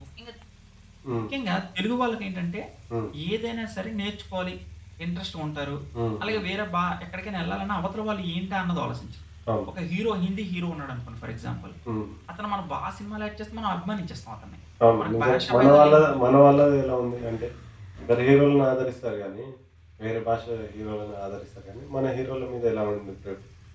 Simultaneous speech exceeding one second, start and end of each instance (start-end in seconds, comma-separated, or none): 15.0-16.2